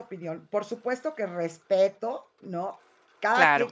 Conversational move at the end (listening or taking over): listening